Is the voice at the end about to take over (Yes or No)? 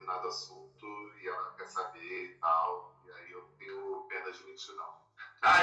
Yes